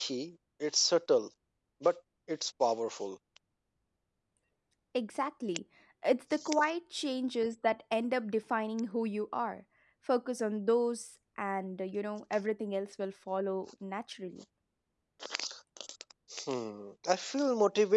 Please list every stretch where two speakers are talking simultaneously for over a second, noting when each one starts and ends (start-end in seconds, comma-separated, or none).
none